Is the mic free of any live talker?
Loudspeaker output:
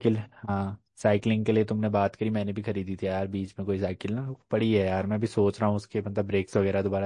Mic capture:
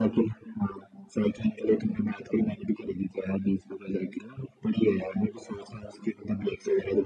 Yes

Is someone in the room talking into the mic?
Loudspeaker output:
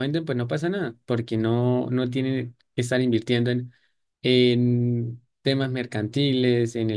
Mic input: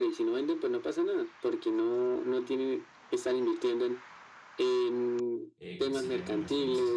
Yes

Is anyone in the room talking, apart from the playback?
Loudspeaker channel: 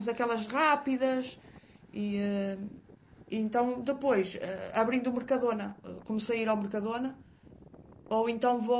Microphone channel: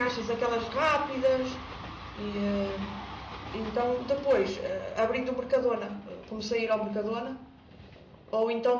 No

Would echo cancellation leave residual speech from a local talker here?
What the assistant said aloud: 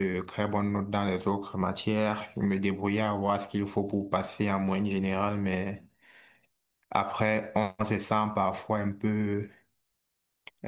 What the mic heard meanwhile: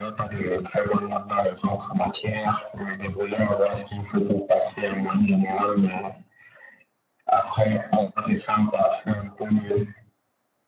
No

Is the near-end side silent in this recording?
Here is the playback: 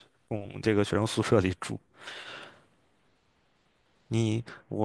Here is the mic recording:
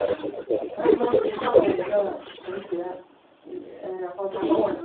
No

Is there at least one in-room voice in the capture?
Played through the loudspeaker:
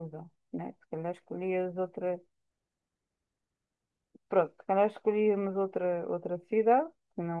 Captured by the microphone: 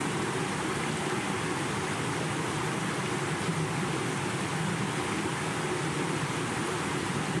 No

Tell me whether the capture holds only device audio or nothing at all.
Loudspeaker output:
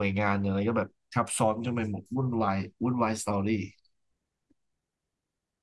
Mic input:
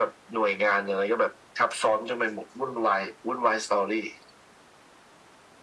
Yes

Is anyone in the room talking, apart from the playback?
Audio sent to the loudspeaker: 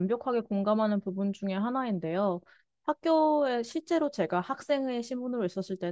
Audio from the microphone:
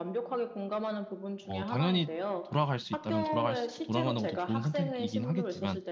Yes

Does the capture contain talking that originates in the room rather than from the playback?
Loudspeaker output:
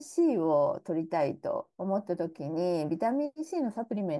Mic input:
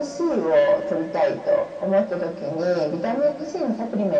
No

